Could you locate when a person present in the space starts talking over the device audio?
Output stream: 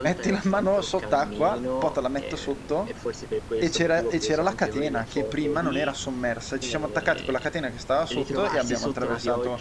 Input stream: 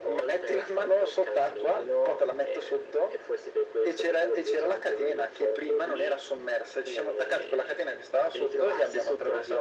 none

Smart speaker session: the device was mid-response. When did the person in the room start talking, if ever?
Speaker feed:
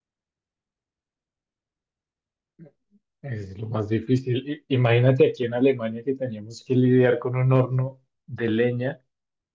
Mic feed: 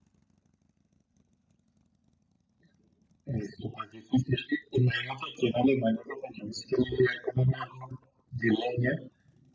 none

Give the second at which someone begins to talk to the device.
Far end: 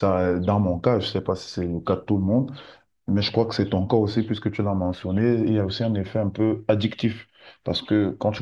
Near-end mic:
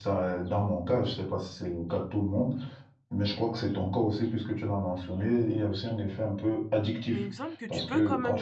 7.1 s

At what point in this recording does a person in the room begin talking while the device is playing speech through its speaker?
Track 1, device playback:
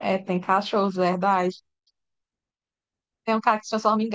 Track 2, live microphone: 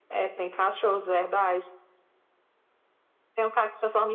none

